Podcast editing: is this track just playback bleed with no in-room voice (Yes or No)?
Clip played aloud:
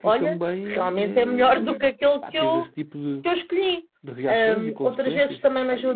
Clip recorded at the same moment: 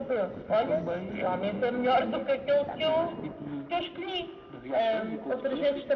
Yes